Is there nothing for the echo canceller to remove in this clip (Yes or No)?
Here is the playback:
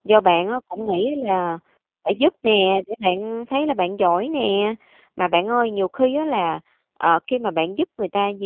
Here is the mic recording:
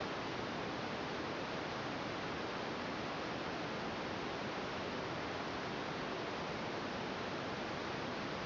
Yes